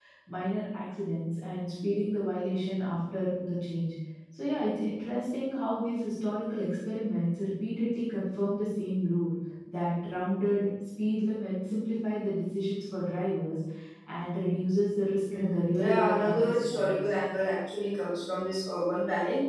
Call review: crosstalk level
present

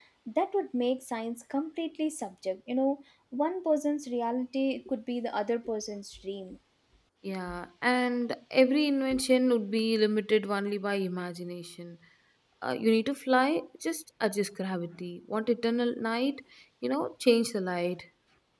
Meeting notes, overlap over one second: none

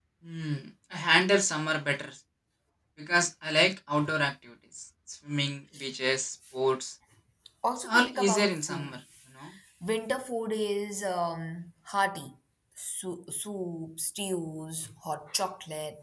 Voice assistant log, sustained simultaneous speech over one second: present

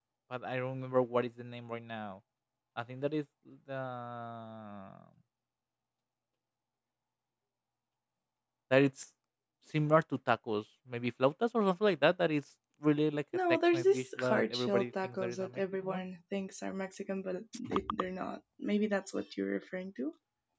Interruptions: present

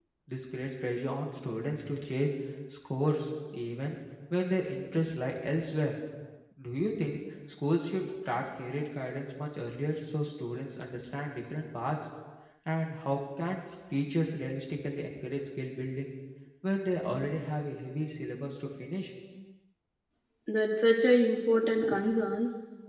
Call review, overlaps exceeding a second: none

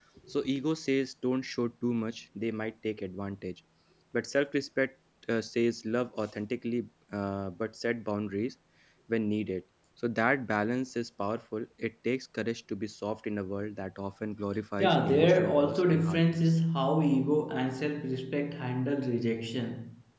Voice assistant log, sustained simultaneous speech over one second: present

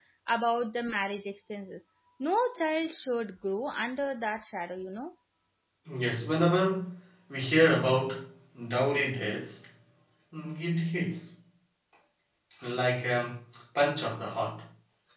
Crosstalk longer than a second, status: none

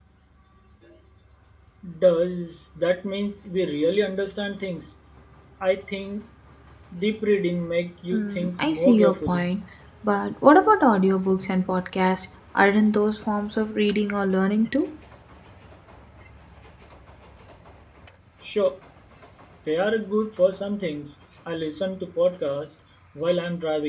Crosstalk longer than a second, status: present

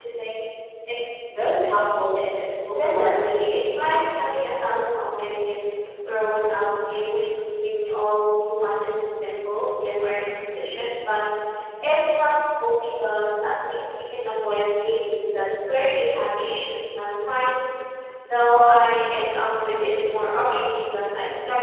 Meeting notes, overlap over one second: present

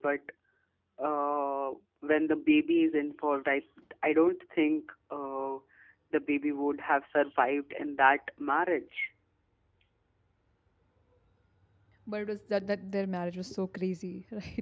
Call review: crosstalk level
none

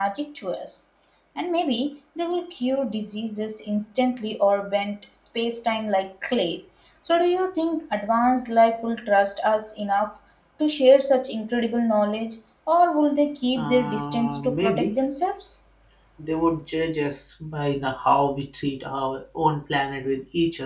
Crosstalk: present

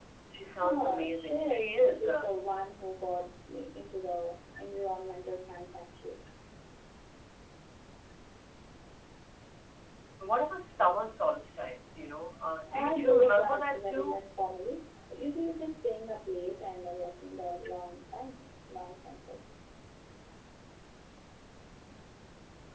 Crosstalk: present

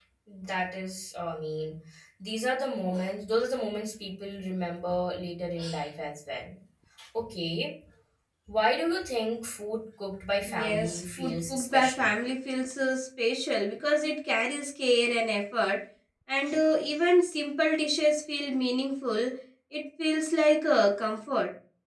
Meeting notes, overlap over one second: present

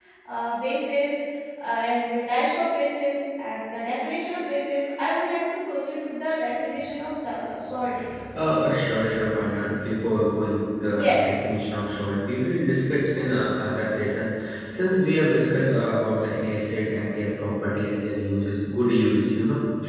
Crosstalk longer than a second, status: none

